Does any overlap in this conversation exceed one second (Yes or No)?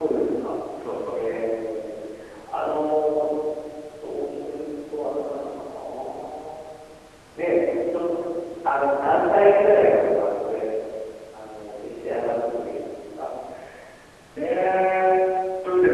No